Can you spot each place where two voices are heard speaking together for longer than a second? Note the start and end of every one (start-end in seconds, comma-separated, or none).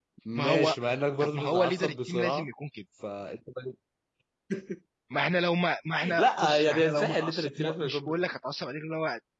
1.2-2.5, 6.2-8.3